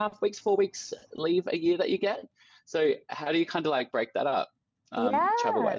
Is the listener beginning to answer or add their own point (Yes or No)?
Yes